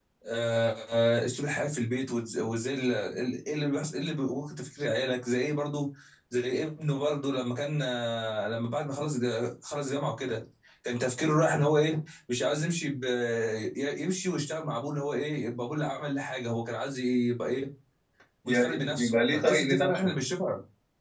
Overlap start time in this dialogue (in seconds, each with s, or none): 18.5 s